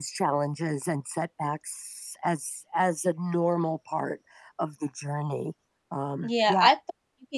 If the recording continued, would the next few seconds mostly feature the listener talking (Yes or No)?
Yes